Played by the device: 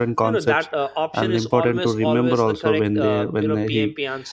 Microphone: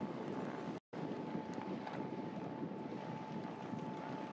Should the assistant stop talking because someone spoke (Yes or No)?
No